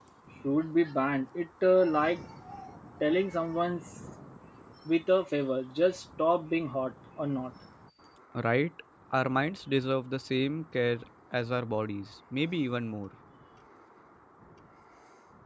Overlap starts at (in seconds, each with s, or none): none